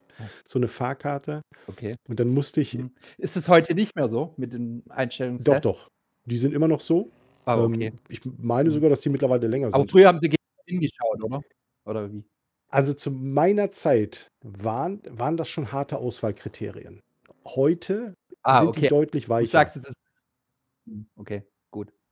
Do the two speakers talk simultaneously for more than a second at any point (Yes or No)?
No